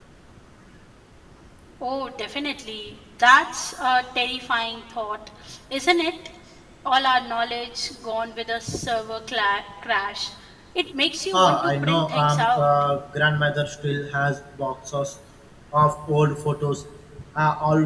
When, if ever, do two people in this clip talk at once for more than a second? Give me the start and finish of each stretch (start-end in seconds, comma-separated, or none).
11.3-12.7